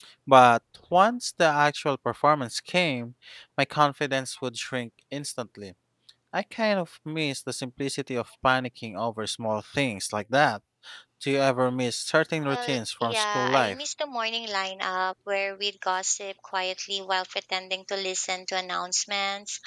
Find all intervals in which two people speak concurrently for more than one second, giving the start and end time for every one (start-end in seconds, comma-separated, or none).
12.5-13.8